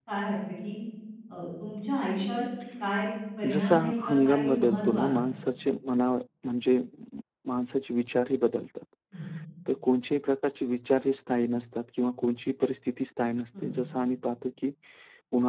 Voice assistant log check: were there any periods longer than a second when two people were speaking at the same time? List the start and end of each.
3.5-5.2

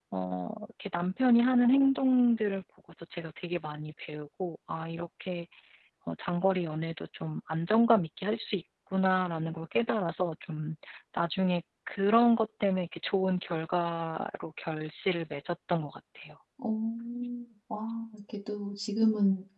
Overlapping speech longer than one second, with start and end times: none

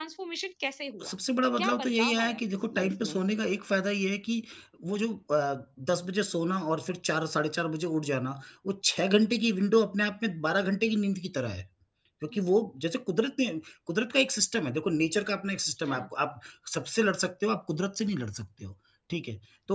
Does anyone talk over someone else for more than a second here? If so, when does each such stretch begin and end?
1.6-3.2

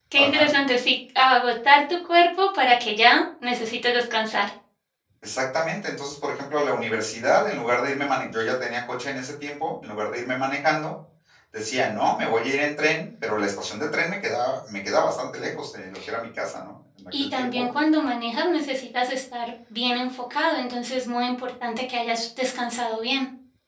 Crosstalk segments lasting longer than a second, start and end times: none

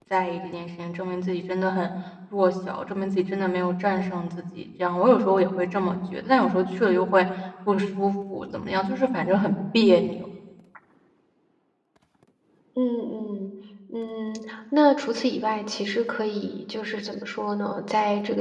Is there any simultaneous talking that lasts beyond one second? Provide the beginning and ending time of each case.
none

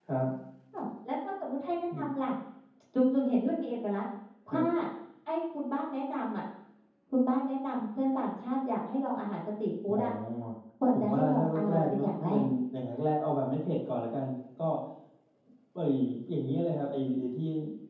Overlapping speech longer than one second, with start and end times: 10.9-12.4

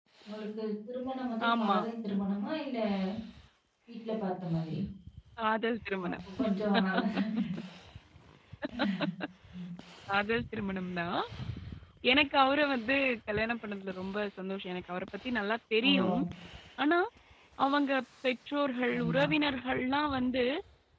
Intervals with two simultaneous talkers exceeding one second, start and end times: none

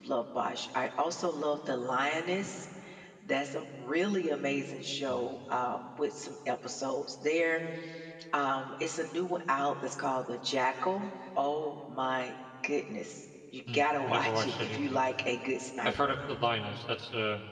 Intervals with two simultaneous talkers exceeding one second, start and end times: 13.7-15.0

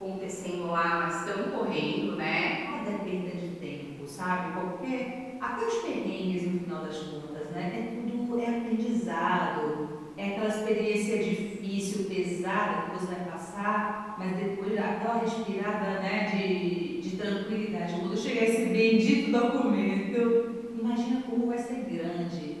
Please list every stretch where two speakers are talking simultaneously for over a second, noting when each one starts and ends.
none

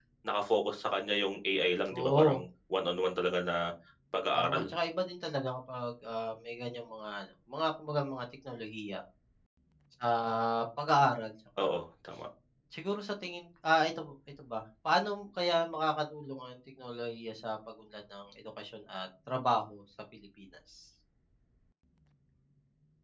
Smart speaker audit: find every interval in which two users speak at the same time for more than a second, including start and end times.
none

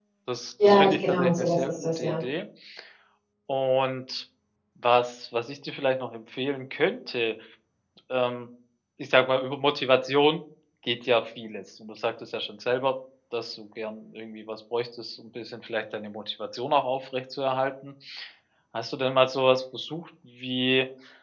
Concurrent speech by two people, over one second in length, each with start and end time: 0.6-2.2

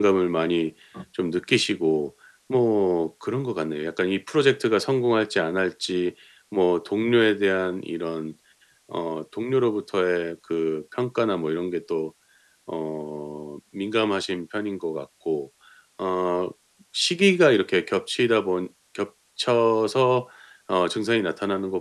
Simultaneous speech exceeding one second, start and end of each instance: none

